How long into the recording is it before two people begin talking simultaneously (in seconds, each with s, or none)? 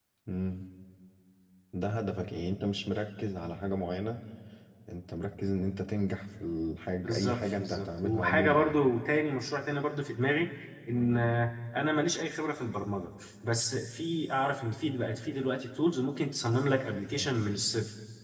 7.0 s